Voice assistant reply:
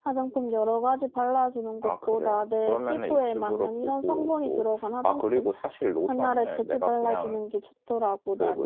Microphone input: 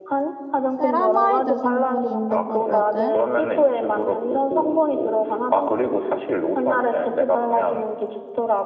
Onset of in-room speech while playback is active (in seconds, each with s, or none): 0.8 s